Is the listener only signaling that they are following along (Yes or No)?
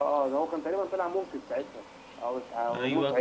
No